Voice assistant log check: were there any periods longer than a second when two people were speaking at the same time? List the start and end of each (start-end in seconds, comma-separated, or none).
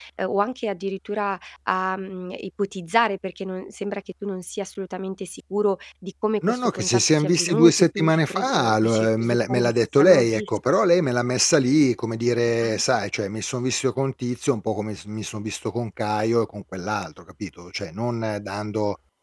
6.5-10.4